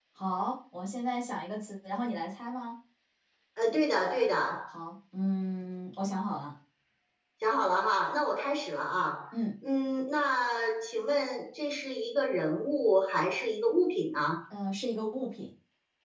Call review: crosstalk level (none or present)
none